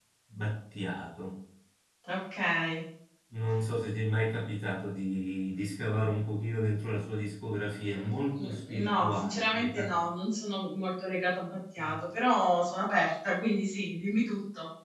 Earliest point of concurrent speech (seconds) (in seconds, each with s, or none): 8.4 s